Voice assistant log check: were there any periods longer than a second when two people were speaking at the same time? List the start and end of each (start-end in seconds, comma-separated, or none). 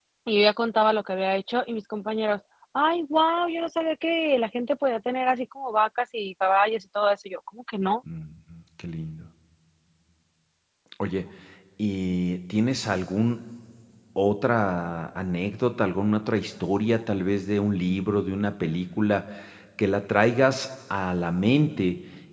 none